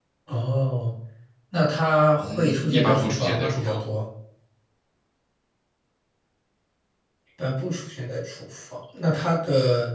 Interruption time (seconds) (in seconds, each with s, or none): 2.2 s